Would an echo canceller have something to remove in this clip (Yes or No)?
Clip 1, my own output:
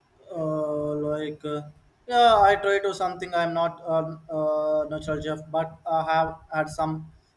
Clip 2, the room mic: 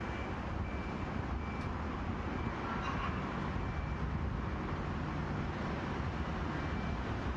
No